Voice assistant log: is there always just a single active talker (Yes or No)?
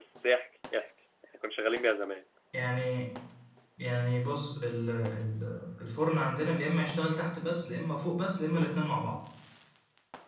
Yes